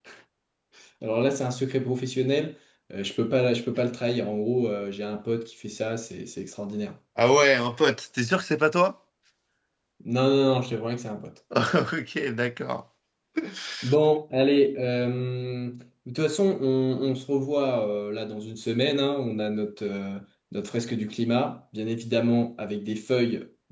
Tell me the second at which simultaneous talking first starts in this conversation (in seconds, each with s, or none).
none